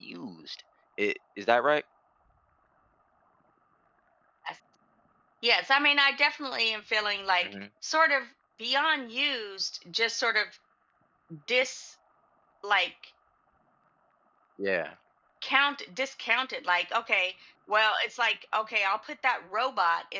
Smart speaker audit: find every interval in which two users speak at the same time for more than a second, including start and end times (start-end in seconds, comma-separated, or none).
none